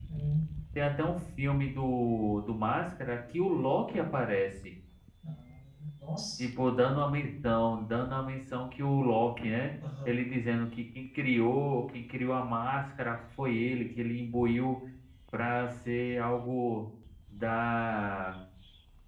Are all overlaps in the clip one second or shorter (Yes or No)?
Yes